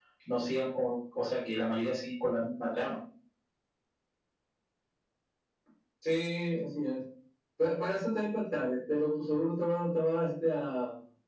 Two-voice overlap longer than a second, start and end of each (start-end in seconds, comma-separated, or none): none